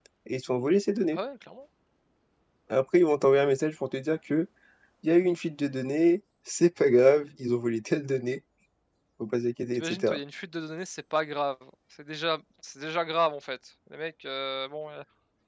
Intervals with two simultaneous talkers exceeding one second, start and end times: none

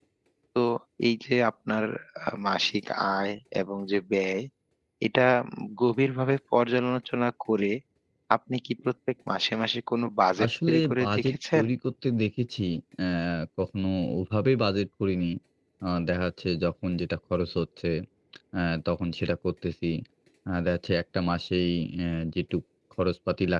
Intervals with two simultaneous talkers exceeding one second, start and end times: 10.4-11.6

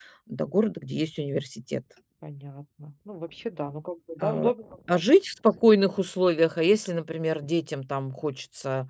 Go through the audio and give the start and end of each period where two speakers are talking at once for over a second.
none

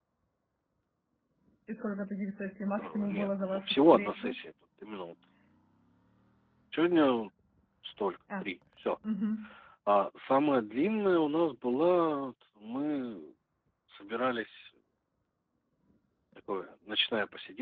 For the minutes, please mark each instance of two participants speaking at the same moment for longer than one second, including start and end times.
2.8-4.3

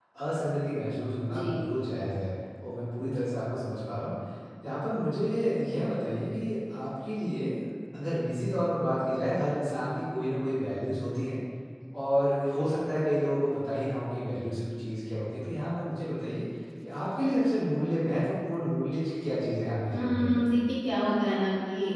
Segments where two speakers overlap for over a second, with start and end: none

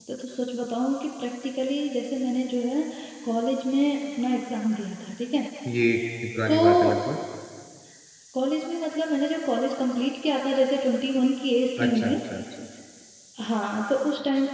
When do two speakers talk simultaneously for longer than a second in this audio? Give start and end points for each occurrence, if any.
none

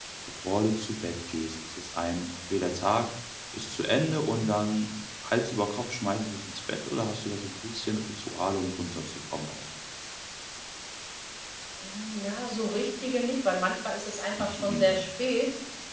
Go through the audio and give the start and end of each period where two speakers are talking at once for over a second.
none

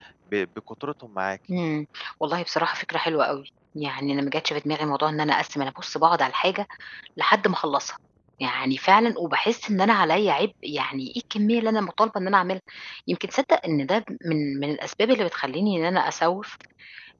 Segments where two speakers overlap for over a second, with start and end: none

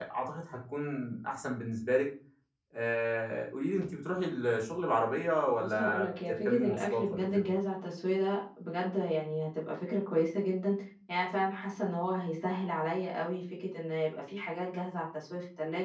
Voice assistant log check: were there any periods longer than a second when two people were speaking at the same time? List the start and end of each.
5.6-7.4

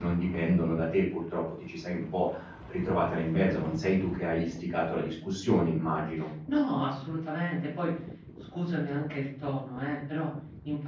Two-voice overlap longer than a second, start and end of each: none

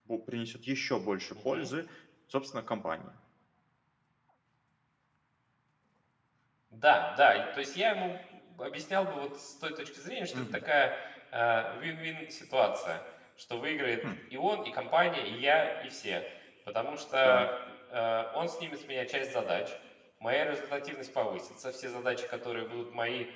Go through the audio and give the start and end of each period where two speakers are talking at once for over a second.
none

